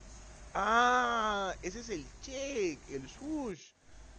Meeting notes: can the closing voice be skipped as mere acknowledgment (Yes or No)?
Yes